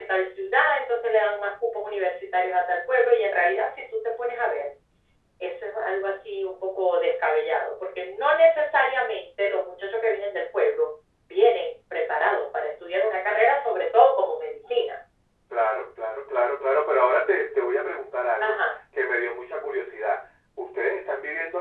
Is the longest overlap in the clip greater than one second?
No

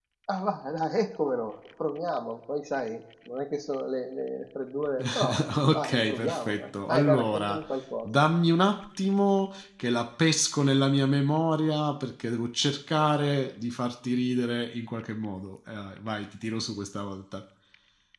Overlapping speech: Yes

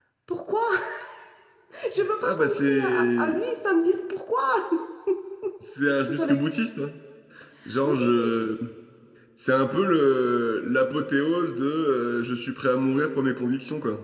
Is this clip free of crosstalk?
No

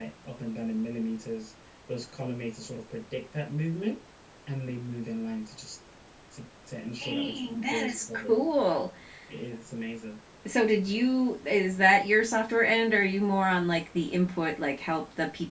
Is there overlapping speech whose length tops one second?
Yes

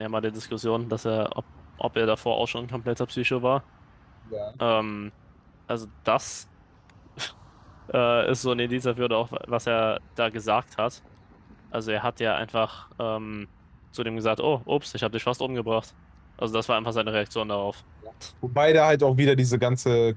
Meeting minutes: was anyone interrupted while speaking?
No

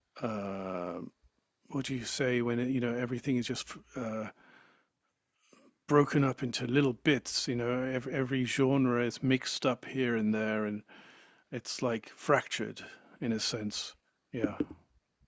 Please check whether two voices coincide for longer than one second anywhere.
No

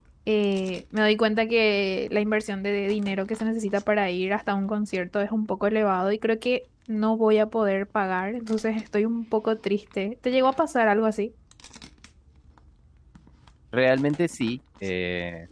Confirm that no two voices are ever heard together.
Yes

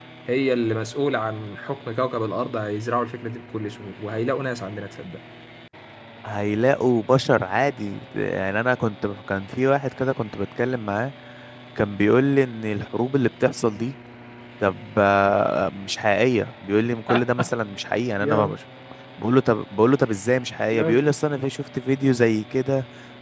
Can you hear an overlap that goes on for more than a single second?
No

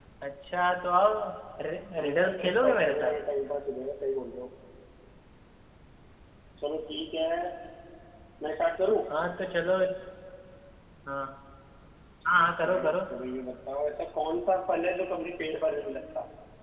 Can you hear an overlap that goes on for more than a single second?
Yes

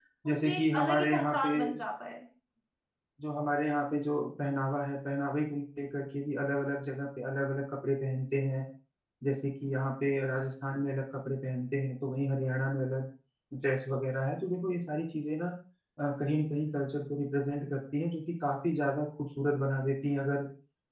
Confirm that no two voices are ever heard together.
No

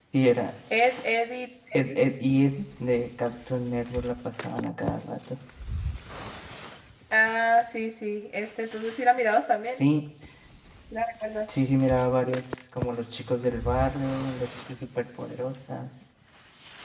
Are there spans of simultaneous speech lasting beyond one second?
No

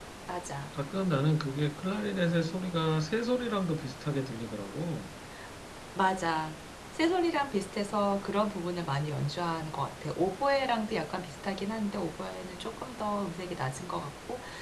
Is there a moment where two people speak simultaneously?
No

